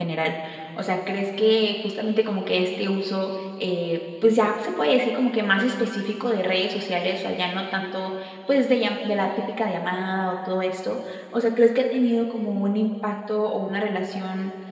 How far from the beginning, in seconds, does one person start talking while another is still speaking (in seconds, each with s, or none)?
none